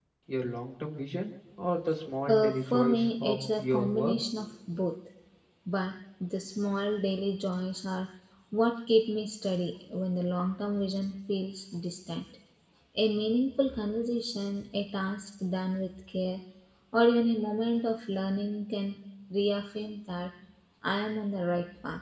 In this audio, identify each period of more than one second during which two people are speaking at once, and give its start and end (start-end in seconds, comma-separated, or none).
2.3-4.2